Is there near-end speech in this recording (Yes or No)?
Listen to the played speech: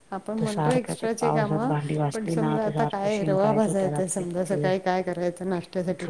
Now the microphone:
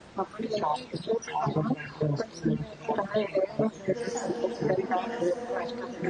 Yes